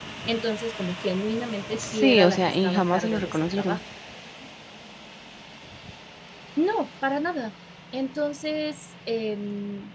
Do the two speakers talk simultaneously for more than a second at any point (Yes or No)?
Yes